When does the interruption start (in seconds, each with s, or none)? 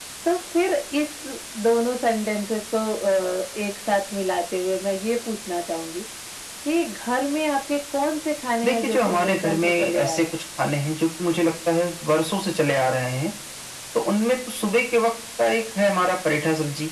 8.6 s